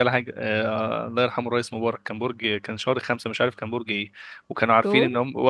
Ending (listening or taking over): listening